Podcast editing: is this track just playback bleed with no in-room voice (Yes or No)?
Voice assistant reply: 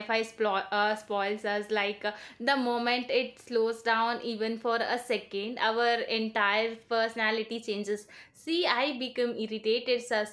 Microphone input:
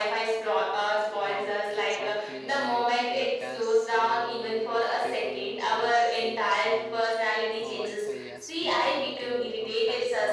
No